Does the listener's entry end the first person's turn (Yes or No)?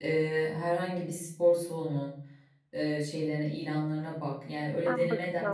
Yes